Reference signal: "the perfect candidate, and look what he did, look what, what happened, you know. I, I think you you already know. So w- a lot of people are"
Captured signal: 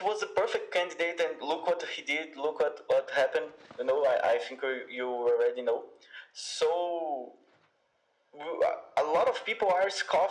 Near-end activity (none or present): none